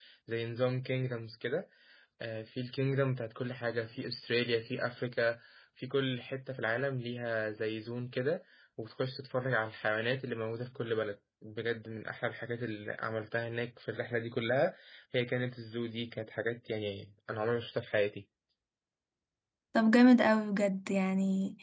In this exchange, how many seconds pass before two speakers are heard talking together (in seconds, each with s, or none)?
none